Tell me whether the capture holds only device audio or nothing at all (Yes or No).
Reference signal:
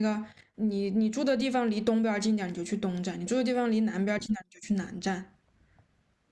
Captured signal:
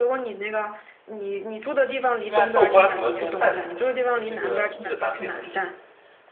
No